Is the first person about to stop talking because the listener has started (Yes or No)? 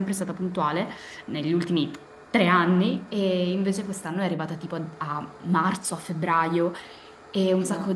No